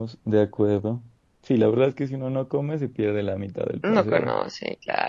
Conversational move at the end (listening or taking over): taking over